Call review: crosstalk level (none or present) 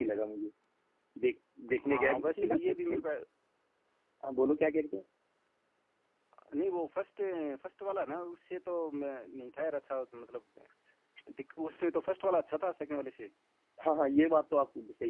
present